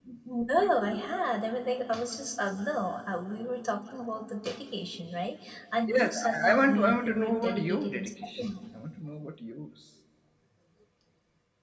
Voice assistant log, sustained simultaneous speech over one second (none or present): present